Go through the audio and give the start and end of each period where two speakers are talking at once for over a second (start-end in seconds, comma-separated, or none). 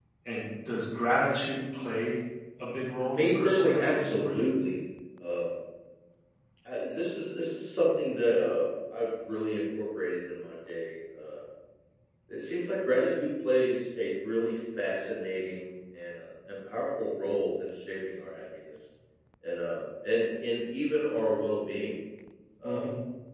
2.9-4.4